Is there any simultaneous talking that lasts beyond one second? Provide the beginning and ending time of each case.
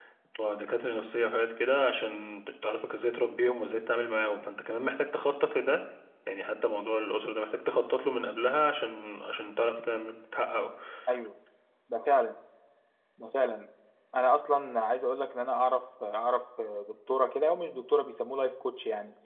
none

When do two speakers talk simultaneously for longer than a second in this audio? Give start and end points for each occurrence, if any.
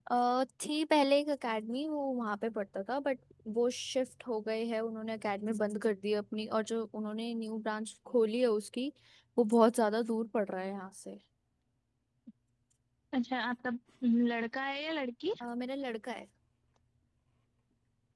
none

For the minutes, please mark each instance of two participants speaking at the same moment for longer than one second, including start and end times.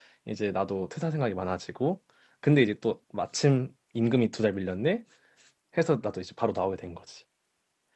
none

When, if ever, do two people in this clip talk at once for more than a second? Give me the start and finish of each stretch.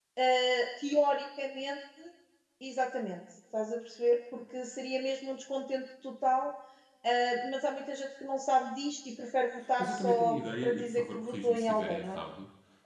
9.8-12.2

